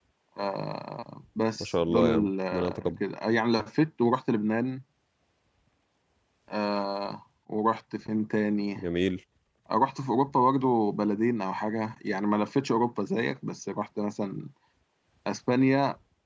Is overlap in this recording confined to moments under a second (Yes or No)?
No